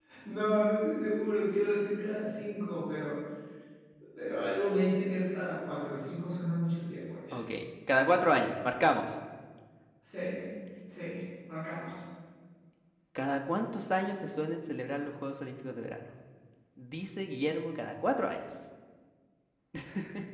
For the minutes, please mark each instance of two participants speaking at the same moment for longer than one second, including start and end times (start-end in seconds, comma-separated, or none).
none